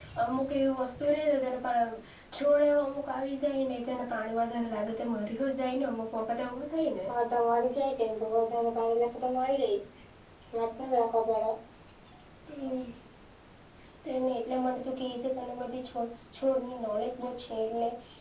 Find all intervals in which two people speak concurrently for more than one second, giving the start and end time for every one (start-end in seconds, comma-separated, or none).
none